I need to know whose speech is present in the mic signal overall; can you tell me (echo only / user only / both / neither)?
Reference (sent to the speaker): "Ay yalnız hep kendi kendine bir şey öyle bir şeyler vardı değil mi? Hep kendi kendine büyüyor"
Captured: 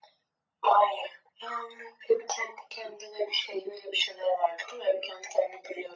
echo only